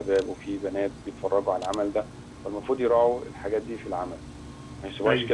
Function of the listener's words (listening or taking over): listening